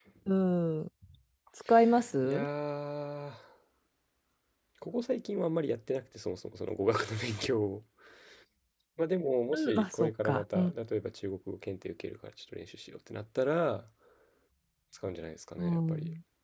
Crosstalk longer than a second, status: present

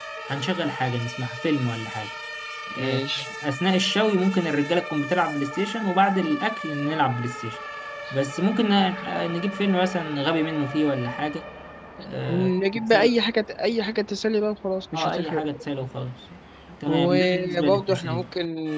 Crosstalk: present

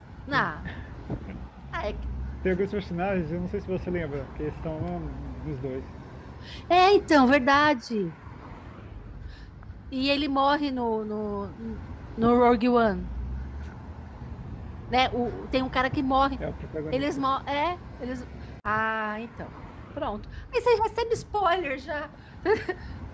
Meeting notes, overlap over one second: none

